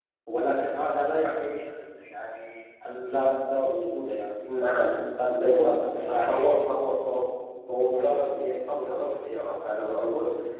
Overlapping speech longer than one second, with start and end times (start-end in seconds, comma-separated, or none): 5.2-6.6